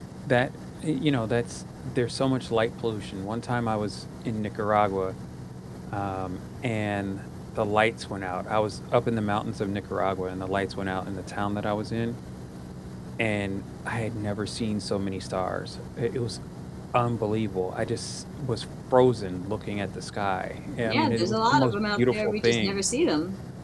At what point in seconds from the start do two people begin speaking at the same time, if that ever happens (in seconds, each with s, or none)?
20.8 s